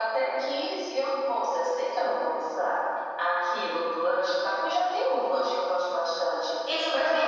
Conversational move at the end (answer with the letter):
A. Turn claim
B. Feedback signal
A